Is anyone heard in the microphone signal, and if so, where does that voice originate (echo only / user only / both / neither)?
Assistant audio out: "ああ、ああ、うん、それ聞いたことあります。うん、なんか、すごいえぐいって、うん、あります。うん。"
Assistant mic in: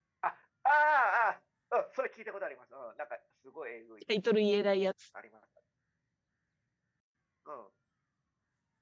both